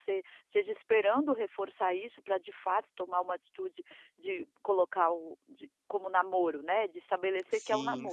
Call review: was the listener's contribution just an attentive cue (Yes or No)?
No